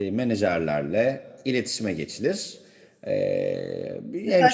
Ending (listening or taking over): taking over